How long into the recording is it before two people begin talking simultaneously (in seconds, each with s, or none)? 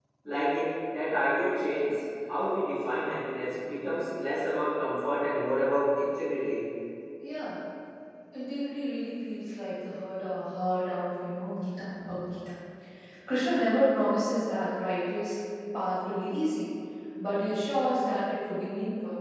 none